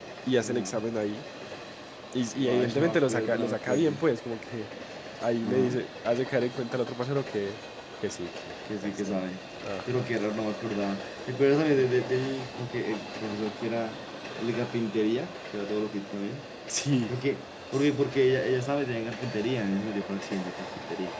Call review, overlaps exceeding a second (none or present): present